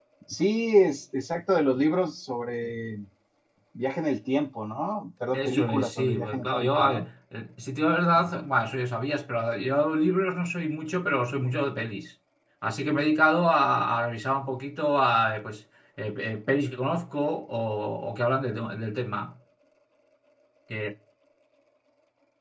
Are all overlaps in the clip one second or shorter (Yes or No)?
No